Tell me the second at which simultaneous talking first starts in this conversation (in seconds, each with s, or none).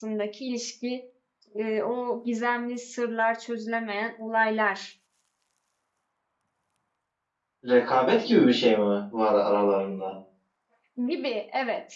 none